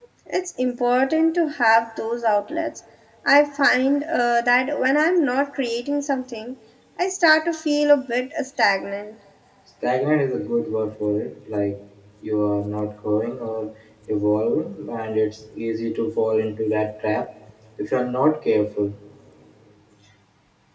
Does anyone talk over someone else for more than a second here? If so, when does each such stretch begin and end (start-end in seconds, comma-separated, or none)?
none